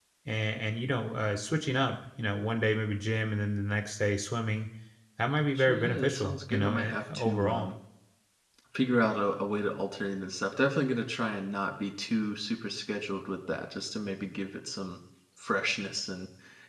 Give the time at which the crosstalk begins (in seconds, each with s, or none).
5.5 s